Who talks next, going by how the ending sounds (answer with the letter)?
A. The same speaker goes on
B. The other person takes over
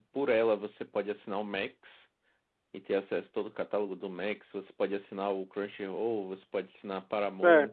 B